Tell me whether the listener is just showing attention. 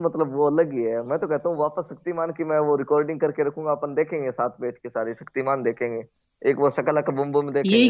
No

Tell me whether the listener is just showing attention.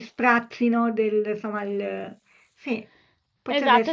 No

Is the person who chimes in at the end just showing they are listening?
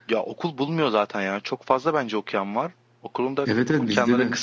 No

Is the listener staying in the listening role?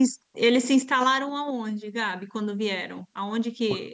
Yes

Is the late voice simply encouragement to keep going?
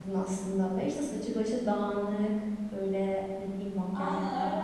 No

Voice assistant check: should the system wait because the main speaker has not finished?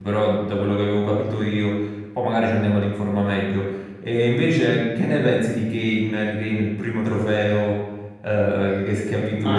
No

